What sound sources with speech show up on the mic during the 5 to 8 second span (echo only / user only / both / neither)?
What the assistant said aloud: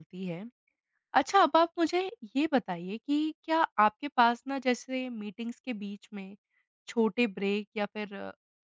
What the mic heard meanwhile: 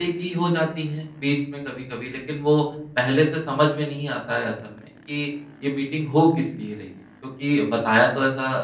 user only